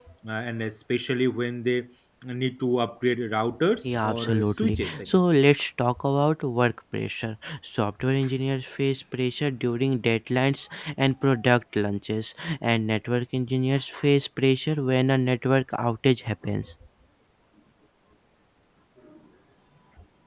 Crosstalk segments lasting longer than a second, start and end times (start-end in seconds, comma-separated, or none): 3.8-5.2